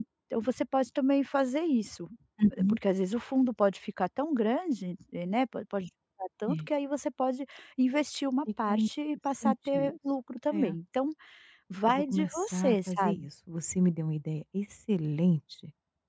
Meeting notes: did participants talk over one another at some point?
Yes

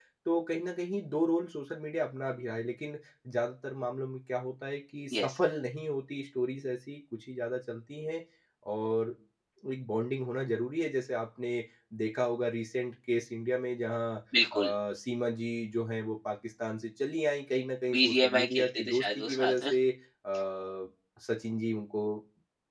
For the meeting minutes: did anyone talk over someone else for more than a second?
Yes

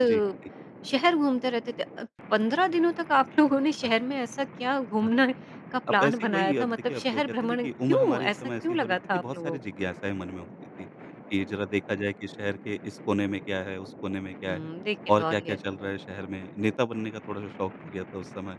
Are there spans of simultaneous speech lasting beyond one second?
Yes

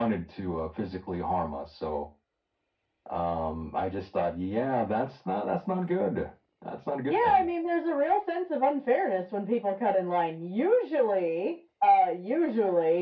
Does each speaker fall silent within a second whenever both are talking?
Yes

